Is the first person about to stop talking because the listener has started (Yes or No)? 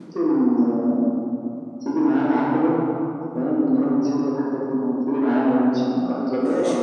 Yes